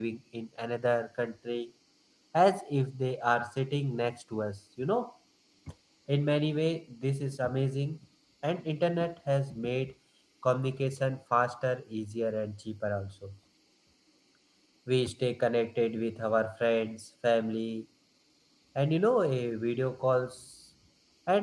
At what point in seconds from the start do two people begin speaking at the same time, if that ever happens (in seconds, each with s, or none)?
none